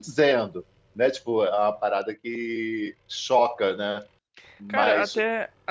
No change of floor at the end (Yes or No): No